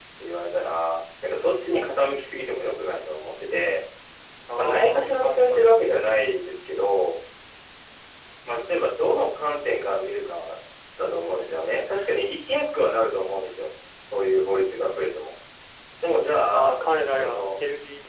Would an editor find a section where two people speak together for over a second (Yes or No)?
Yes